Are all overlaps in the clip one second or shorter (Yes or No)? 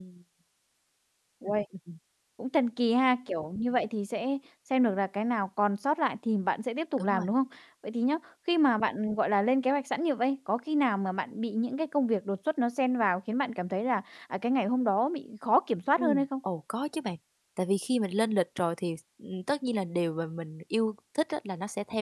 Yes